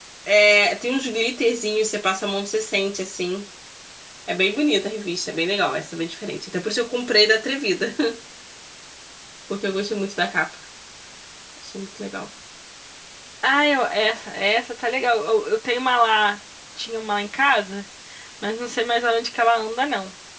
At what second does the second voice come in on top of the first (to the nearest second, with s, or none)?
none